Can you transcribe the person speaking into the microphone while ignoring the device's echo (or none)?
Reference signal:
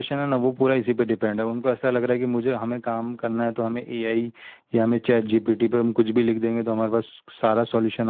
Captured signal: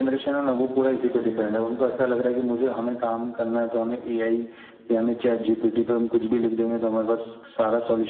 none